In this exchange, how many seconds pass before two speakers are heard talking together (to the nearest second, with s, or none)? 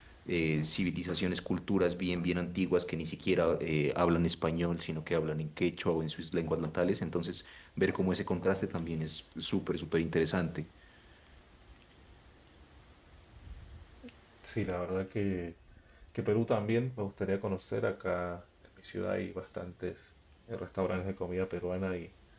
none